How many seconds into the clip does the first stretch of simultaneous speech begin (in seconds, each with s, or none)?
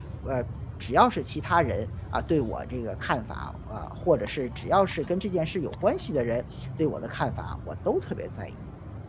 none